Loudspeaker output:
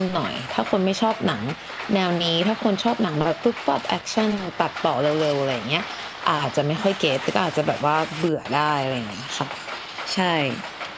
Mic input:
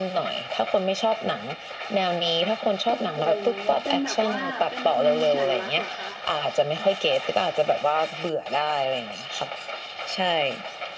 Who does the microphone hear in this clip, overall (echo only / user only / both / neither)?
both